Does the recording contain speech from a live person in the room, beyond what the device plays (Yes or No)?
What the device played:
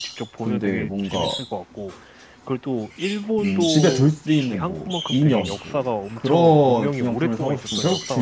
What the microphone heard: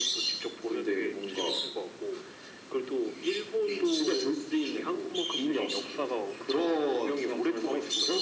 No